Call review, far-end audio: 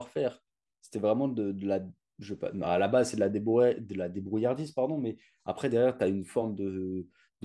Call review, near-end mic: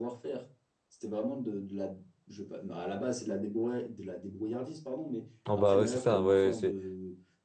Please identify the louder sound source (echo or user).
user